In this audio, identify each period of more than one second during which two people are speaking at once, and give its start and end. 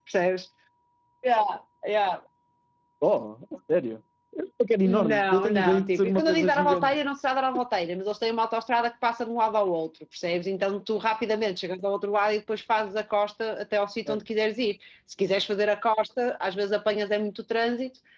4.8-7.0

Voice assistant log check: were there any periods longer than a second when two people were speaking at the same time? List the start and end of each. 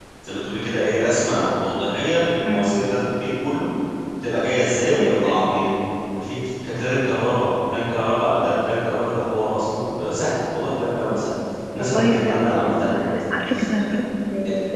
11.8-13.0

